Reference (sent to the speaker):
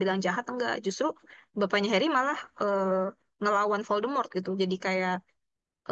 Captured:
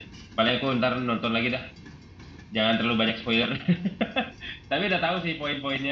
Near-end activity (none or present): present